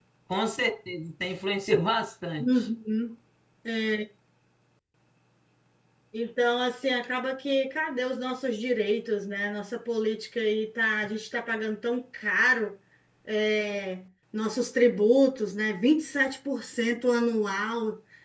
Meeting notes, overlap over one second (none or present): none